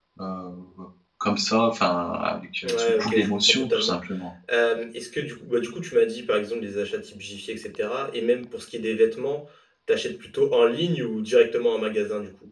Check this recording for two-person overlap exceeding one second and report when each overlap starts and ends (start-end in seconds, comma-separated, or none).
2.7-3.9